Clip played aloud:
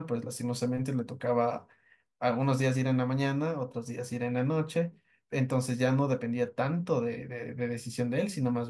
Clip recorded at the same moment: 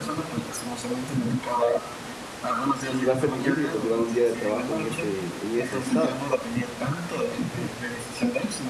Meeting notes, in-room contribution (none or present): present